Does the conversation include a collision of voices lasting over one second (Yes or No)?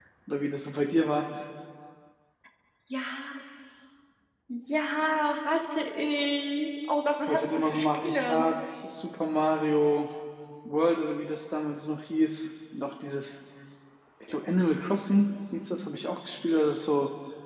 Yes